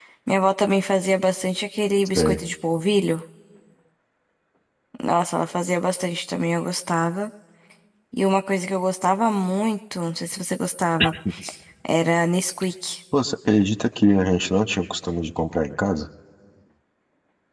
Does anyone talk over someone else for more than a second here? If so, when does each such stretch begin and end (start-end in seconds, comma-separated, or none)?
none